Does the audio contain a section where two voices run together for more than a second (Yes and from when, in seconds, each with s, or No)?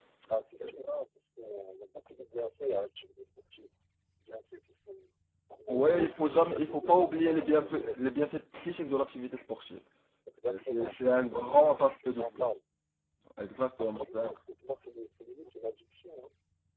Yes, from 5.7 s